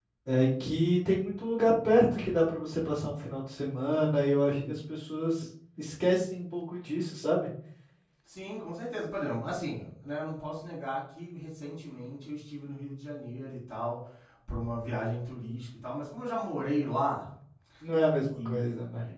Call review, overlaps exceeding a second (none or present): none